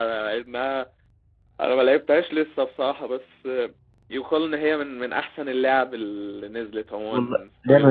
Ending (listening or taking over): taking over